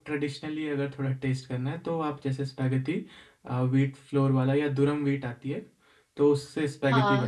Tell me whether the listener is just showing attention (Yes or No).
No